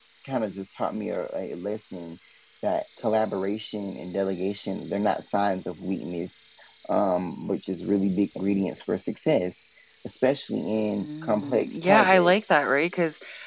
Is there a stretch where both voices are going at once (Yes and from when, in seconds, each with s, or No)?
Yes, from 11.0 s